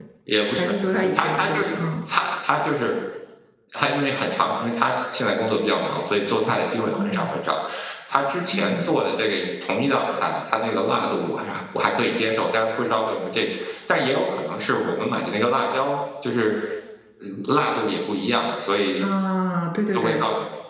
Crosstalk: present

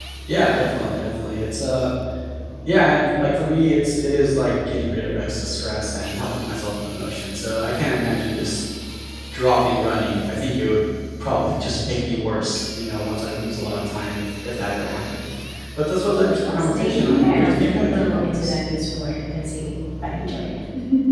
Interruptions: present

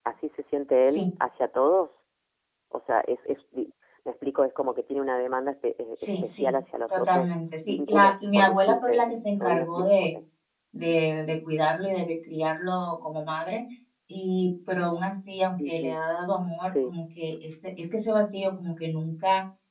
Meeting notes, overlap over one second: present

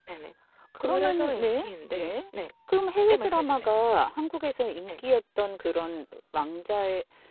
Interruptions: present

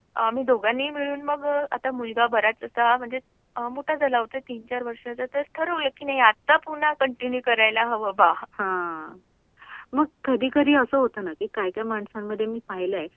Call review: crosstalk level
none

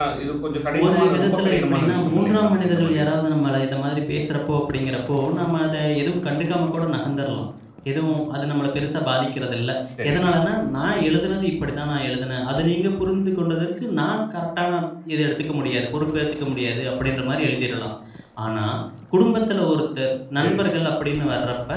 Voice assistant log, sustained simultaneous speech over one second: present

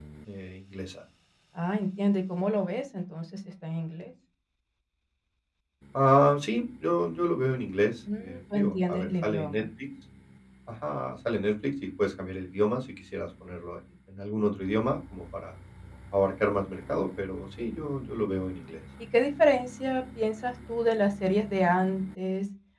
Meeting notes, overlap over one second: present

